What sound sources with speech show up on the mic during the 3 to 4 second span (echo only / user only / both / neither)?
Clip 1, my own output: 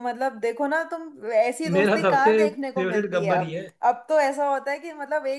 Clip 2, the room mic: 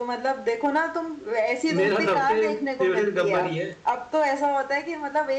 echo only